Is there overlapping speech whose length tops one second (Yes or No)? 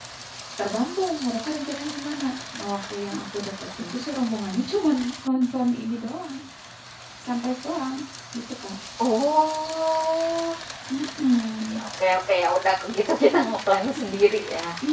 No